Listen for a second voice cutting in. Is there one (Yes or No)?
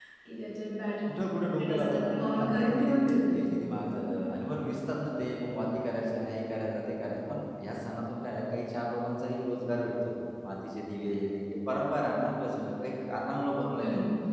Yes